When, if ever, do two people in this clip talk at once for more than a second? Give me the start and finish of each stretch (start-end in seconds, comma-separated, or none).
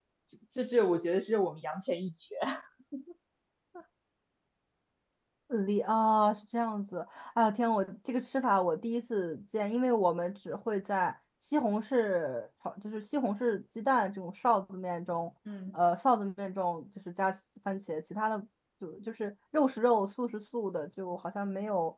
none